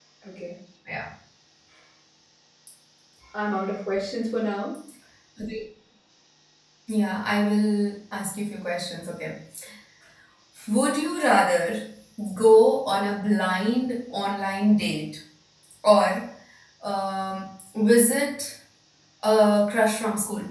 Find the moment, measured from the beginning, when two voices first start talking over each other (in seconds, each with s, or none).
none